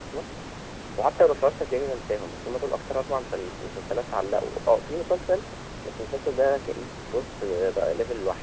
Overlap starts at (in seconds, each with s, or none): none